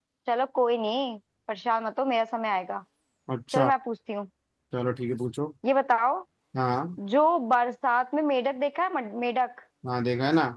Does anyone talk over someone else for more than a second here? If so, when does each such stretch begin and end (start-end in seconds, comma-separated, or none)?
none